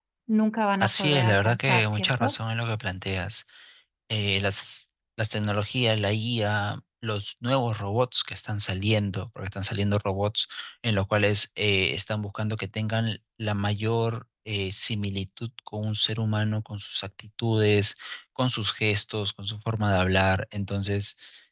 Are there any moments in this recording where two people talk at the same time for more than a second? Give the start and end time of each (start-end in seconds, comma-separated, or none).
0.8-2.3